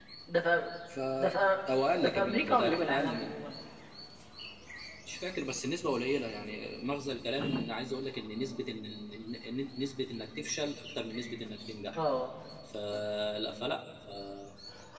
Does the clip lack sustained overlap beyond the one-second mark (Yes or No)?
No